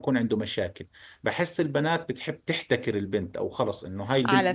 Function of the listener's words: taking over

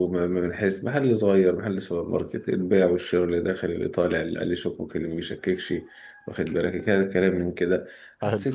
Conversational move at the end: listening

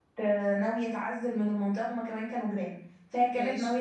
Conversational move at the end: listening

